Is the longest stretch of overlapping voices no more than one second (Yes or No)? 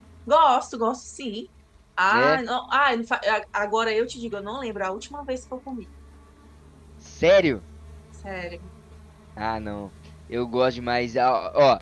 Yes